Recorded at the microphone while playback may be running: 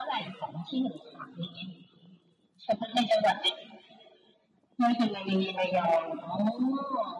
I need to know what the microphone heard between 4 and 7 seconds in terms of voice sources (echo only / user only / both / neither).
echo only